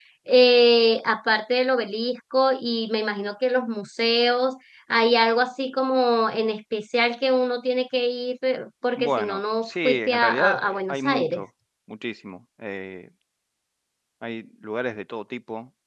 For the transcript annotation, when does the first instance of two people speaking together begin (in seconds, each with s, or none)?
8.9 s